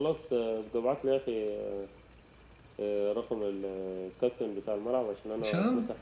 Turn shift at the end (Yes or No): No